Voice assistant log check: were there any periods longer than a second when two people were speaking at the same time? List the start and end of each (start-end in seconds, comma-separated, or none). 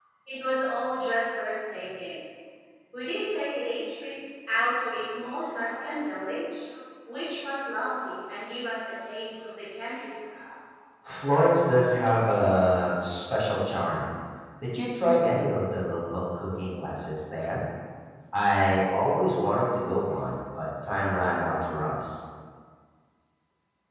none